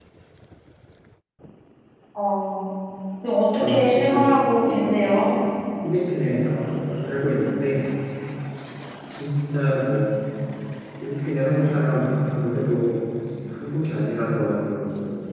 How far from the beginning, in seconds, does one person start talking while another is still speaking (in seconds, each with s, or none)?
3.6 s